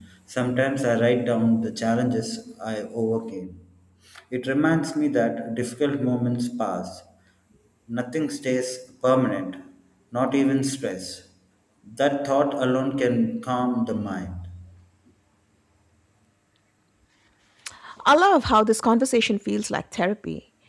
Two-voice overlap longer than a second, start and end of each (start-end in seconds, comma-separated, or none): none